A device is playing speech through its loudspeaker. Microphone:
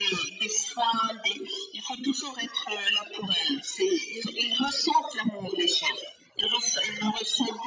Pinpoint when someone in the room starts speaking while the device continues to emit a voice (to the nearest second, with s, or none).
none